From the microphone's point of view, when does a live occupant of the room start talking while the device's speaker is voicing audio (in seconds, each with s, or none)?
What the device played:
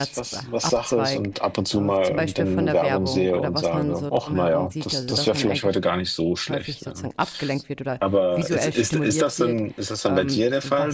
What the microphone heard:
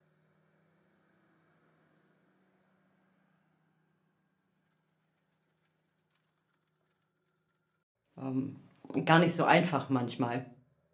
8.2 s